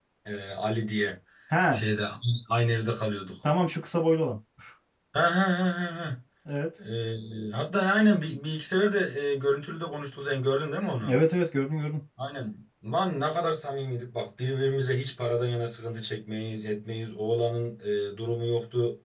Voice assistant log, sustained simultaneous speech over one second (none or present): none